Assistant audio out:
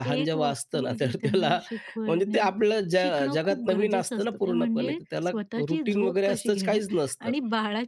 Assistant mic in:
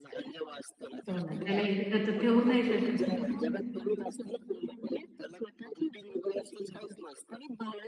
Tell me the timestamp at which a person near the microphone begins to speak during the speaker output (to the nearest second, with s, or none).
1 s